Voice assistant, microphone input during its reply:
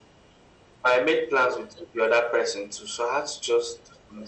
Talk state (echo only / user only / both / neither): echo only